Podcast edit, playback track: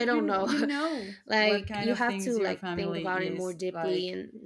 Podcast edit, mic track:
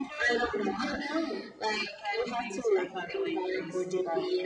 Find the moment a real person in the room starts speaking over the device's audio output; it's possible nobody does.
none

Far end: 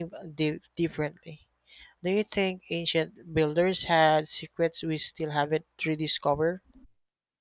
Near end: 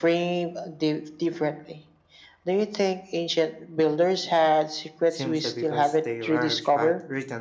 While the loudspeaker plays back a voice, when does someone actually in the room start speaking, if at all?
5.1 s

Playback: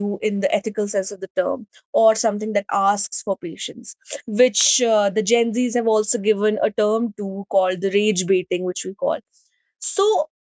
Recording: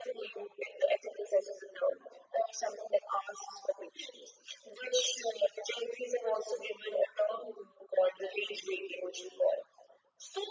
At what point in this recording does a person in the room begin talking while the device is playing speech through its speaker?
none

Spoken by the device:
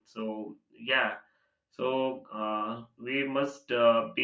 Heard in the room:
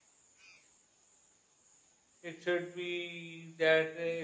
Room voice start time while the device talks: 2.2 s

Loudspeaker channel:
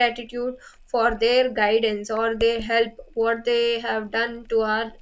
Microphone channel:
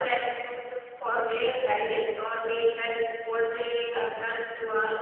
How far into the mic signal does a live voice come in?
none

